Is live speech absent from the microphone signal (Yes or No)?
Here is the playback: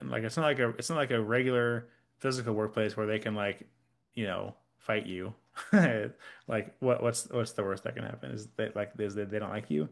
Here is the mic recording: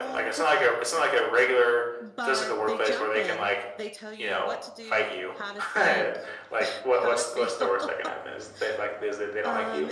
No